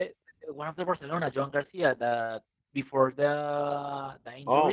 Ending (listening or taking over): listening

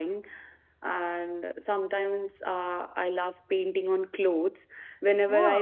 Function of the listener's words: listening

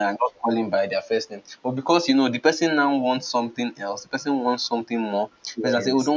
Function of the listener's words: listening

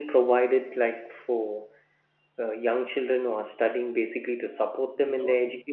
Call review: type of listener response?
taking over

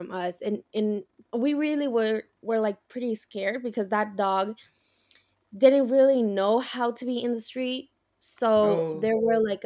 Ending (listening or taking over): listening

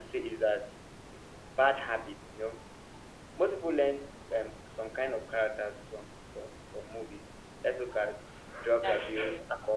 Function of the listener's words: listening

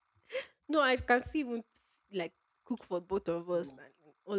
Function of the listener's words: listening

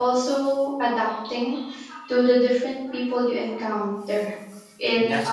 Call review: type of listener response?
listening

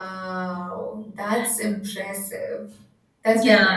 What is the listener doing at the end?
taking over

